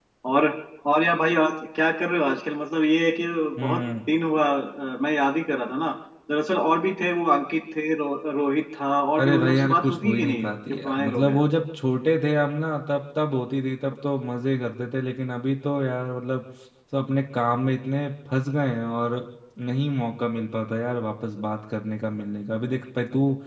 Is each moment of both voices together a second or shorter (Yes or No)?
No